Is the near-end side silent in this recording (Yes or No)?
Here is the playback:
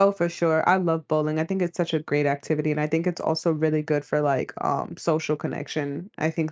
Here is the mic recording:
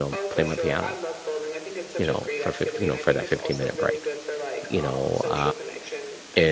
No